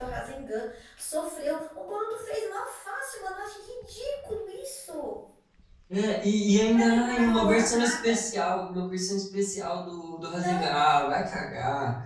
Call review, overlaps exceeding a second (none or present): present